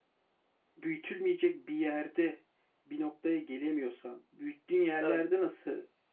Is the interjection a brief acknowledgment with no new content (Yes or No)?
Yes